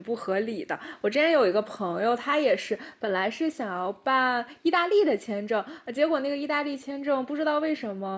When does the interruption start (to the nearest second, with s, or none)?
none